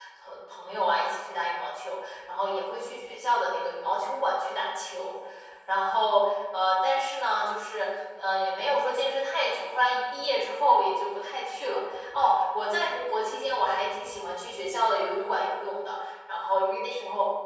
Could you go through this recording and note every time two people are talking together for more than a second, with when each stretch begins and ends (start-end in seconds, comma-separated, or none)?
none